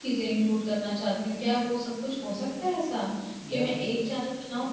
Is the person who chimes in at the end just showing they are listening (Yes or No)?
Yes